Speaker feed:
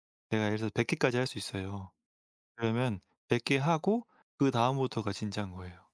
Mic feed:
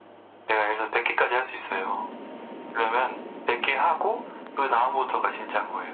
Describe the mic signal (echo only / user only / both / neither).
echo only